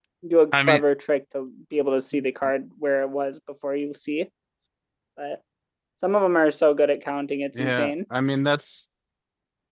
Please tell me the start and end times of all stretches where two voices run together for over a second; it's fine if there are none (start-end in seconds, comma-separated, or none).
none